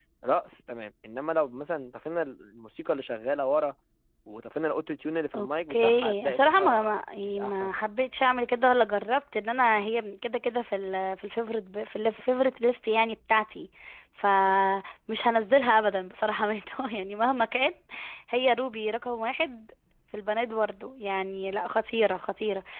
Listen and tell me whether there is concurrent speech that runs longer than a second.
Yes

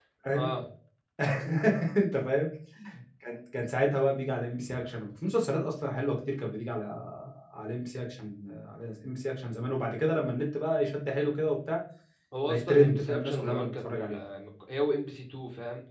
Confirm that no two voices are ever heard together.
No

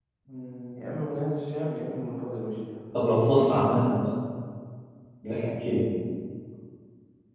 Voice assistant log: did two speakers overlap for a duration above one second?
No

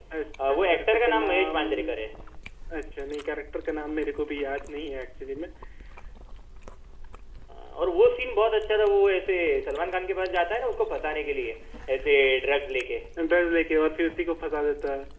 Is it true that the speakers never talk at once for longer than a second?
No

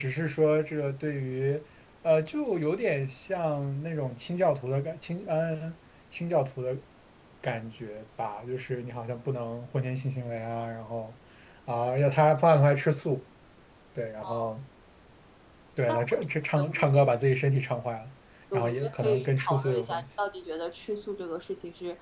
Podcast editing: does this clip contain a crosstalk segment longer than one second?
Yes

